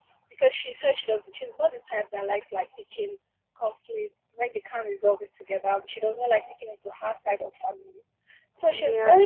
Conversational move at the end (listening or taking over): listening